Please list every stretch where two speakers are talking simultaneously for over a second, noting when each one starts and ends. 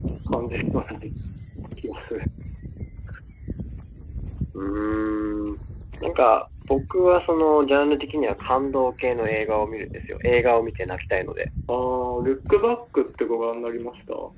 none

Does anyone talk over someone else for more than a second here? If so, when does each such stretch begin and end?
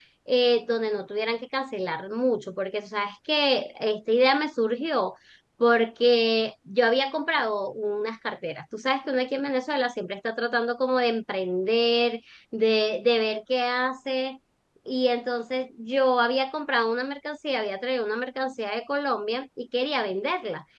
none

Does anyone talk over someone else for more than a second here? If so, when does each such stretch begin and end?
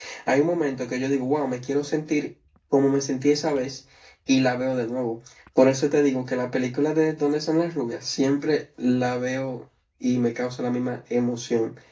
none

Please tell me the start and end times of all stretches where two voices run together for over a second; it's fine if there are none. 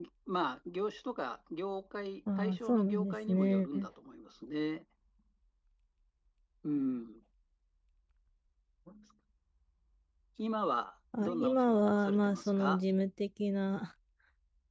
2.4-3.7, 11.2-12.8

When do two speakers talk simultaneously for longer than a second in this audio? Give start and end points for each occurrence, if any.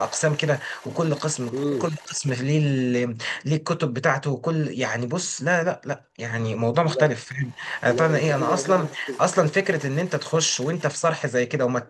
7.9-9.1

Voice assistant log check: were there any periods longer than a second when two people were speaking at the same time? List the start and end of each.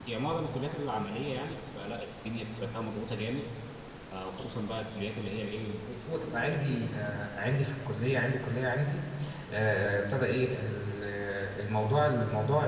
none

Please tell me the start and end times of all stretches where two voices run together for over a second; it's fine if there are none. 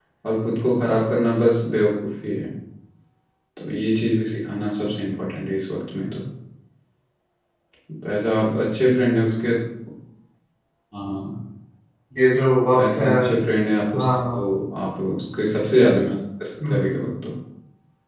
none

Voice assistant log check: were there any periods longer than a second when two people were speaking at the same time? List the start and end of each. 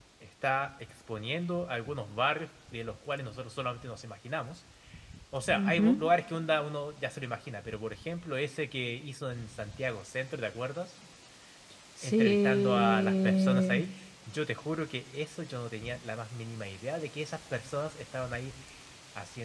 12.0-13.8

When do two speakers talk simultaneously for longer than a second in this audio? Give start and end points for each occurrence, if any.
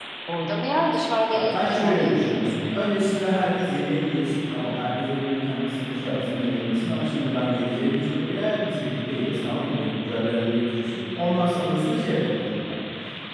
1.3-2.5

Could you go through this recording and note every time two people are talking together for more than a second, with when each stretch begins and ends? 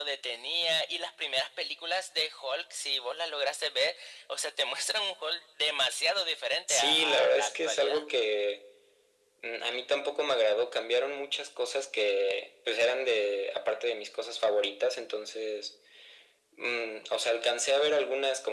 6.7-8.0

